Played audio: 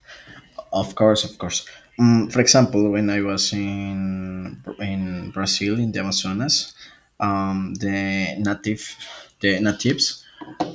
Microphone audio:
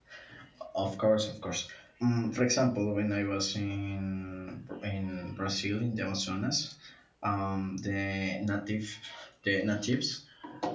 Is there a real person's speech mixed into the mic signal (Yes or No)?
No